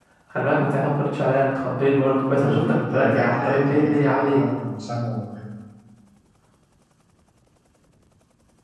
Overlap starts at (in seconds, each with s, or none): 2.2 s